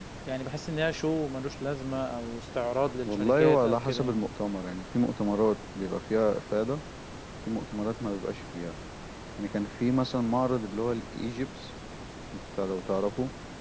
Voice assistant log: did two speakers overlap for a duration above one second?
Yes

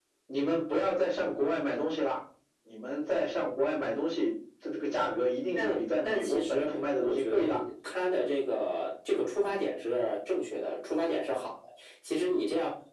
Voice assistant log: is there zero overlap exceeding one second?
No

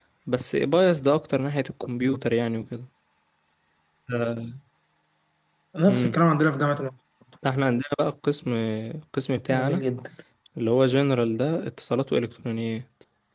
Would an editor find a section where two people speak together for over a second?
No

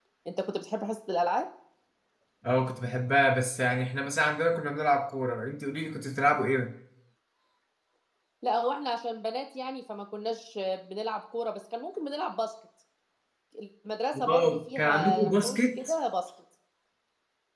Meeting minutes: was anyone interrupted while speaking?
Yes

